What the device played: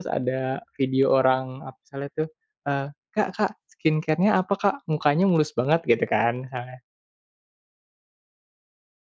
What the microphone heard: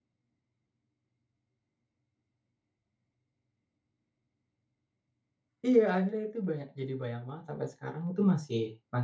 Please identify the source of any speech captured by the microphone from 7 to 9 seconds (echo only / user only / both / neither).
user only